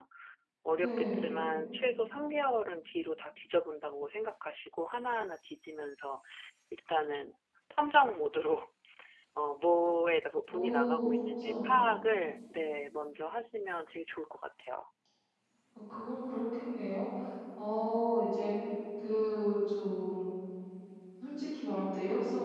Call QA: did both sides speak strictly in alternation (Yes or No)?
No